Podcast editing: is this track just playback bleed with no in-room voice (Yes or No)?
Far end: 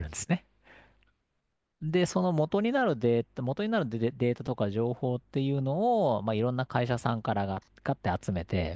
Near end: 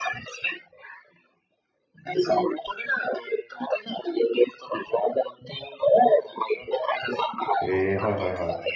No